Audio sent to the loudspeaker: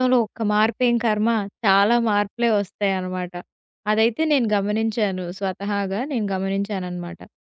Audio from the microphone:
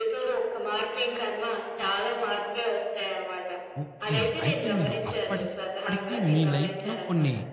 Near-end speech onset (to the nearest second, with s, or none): 4 s